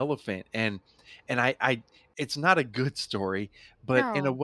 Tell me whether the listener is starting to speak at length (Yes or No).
No